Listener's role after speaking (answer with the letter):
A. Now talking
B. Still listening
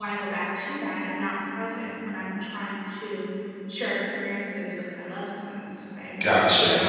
A